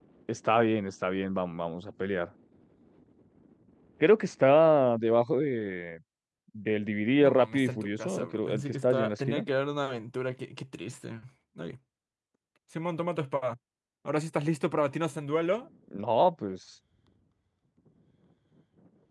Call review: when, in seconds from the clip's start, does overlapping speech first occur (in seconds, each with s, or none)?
7.2 s